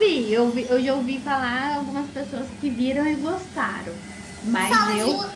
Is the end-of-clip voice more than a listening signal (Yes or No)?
Yes